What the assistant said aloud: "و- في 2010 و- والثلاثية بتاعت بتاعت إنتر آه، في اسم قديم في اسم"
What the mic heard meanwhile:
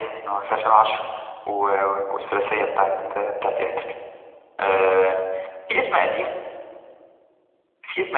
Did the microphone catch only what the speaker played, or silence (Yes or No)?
Yes